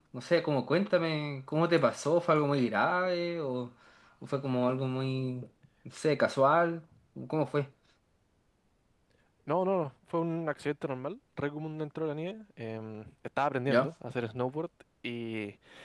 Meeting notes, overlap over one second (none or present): none